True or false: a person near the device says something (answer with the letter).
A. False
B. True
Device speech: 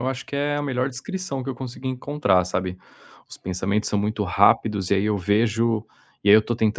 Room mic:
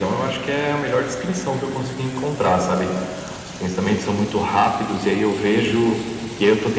A